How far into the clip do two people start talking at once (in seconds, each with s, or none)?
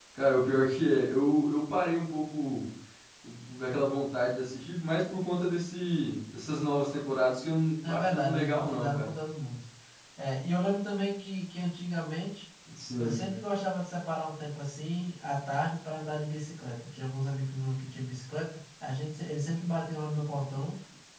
7.8 s